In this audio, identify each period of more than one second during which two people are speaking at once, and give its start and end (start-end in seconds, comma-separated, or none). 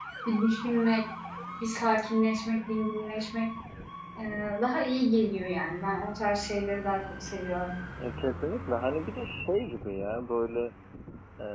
none